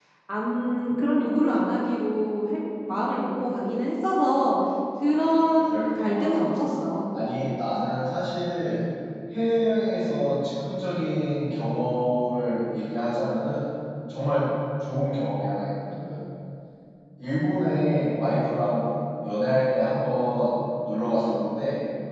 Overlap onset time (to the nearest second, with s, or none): 5 s